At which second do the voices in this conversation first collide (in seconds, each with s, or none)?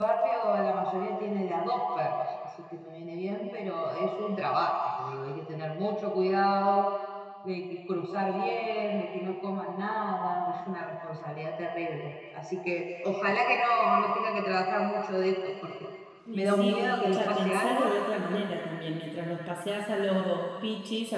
16.3 s